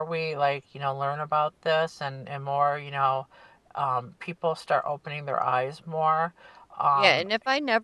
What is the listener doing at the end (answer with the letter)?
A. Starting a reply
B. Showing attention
A